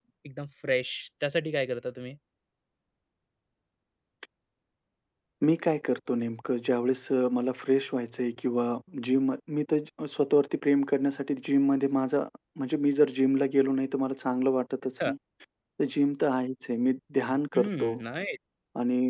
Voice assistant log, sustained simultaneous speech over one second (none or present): none